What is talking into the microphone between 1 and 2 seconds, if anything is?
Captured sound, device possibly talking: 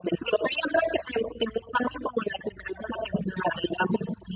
echo only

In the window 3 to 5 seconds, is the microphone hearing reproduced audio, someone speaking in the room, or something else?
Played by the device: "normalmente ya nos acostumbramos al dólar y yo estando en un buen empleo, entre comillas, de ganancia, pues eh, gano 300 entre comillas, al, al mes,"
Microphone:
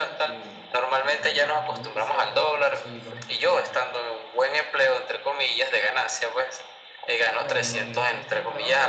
both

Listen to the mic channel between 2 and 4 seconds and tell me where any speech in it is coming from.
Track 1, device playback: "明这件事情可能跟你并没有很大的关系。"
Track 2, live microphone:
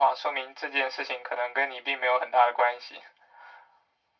echo only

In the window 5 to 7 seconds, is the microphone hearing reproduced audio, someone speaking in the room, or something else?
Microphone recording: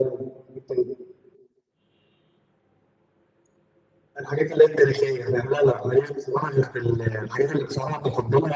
echo only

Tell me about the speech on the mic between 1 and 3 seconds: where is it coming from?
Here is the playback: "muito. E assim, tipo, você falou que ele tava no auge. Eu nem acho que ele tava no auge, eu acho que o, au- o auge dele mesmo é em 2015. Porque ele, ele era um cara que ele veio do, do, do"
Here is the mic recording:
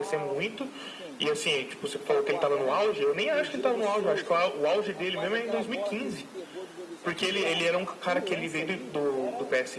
both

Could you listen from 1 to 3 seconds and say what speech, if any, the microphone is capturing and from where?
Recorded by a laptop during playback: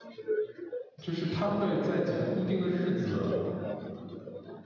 both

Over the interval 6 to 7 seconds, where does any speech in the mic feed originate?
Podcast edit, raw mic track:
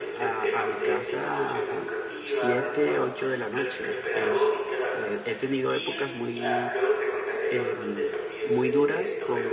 both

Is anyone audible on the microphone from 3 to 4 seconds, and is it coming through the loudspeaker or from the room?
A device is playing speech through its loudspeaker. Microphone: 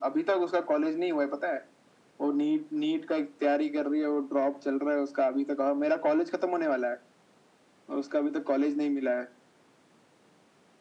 echo only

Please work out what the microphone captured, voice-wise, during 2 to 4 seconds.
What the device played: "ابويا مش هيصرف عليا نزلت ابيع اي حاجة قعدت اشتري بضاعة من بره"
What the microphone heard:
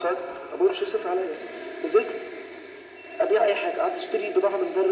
echo only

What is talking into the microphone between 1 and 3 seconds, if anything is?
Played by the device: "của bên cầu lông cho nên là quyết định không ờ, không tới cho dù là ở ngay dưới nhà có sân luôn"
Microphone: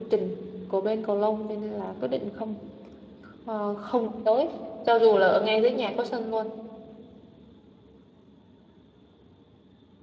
echo only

